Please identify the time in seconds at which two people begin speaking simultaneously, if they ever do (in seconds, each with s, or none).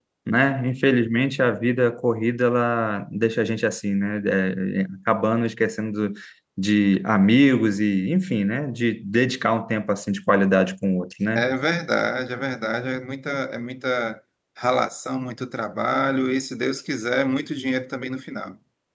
none